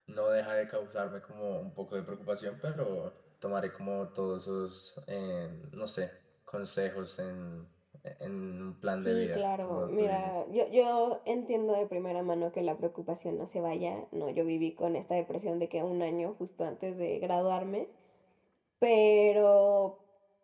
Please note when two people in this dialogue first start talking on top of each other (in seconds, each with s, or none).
9.1 s